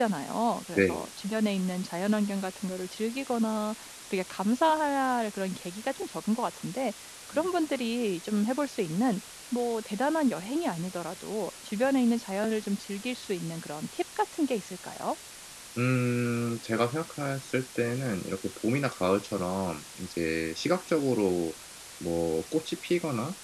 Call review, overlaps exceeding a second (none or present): none